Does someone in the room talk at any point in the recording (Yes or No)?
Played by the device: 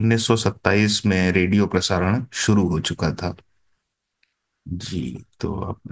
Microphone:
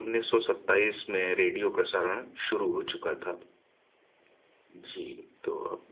No